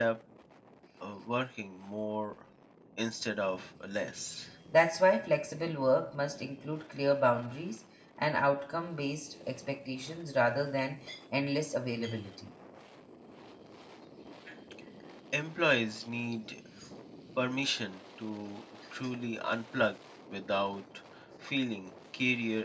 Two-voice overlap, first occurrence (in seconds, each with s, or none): none